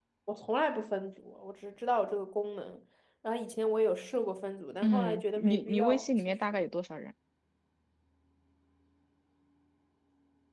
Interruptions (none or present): present